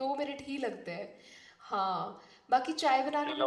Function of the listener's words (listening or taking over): taking over